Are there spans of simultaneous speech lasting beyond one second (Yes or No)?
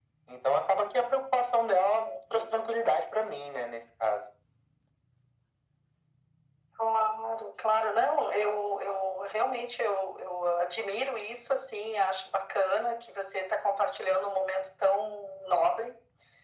No